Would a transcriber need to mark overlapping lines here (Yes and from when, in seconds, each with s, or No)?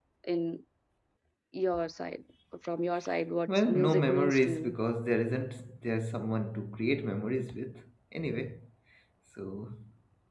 Yes, from 3.5 s